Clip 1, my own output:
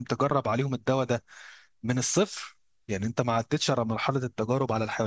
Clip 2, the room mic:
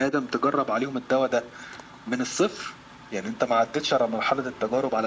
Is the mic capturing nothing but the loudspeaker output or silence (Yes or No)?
Yes